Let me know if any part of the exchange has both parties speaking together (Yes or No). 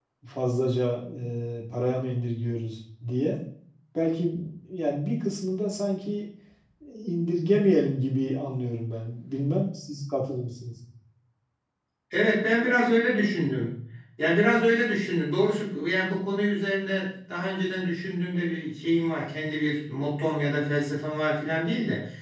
No